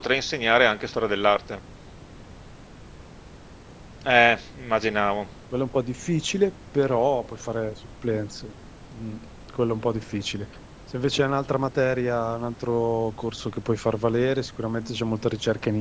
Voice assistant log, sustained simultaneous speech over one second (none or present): none